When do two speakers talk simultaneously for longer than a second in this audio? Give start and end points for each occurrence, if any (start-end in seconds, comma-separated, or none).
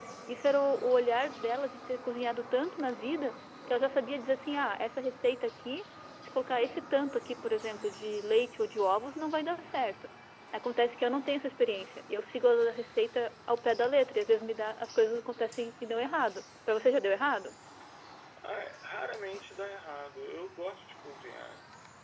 none